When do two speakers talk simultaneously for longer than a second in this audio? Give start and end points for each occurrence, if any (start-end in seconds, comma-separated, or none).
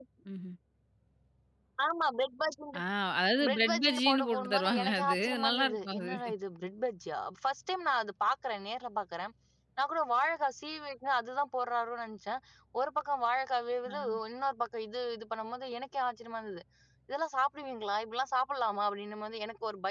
3.5-6.1